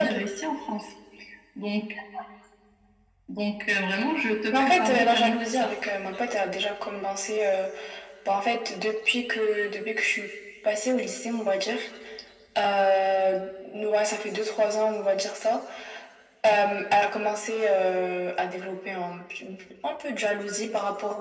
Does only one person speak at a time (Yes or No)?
No